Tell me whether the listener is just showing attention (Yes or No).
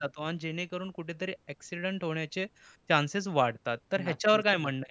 Yes